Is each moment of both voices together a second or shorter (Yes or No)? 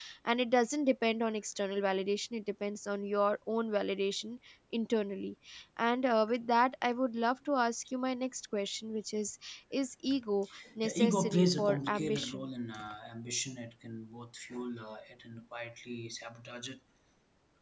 No